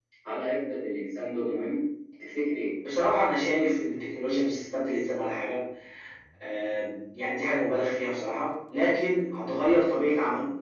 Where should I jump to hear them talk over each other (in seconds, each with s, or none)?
none